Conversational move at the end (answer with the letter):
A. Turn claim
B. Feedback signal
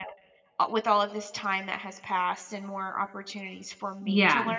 B